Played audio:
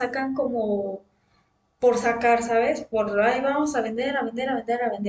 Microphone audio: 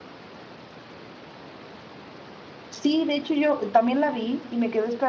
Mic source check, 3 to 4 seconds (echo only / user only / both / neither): user only